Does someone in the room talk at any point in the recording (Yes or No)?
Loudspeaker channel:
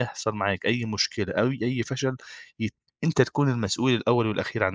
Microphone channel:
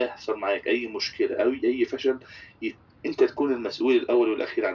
No